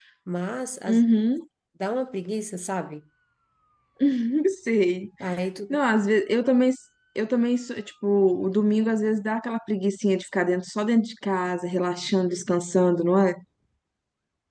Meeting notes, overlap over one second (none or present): none